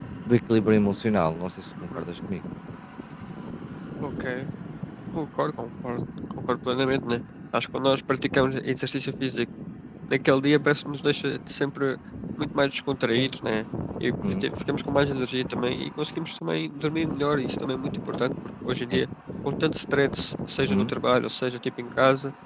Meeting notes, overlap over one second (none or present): none